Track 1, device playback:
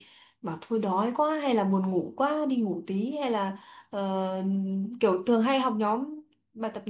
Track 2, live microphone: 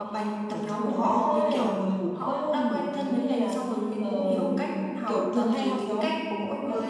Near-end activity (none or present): present